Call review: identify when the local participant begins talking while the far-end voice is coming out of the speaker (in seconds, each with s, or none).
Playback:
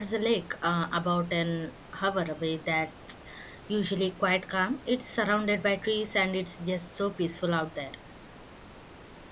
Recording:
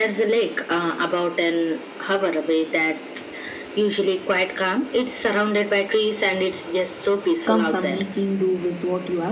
7.4 s